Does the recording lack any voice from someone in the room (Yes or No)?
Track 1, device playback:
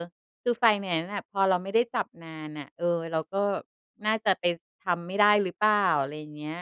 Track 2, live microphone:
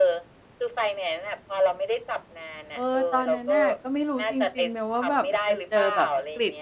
No